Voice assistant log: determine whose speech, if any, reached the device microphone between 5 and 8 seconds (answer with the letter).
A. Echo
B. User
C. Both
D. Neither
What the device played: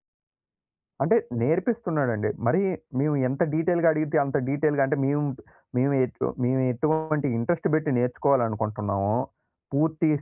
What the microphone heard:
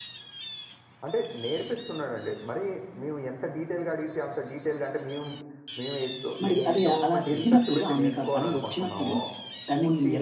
C